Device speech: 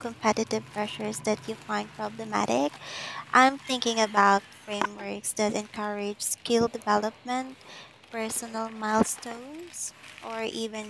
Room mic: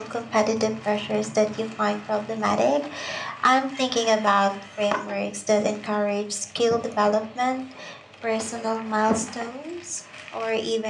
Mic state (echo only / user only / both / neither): echo only